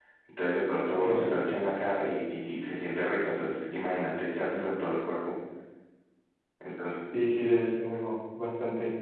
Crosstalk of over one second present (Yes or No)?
No